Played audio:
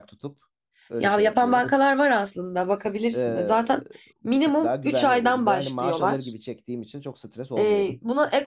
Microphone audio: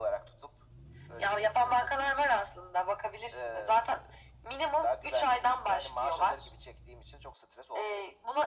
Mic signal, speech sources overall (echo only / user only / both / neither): echo only